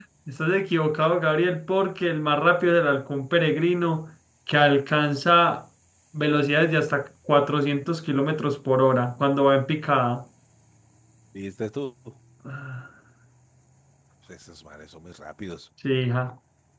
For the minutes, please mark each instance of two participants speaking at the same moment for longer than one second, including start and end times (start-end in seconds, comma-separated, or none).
none